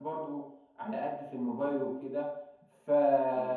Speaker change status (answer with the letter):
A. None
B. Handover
A